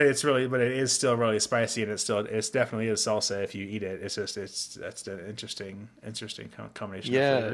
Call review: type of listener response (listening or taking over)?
taking over